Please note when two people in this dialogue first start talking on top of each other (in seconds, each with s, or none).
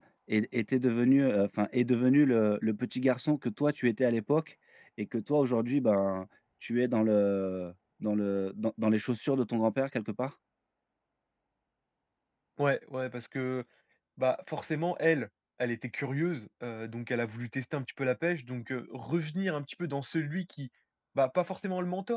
none